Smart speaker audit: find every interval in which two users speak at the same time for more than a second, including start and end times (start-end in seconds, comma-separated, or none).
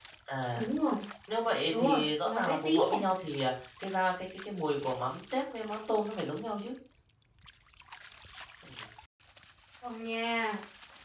1.7-3.0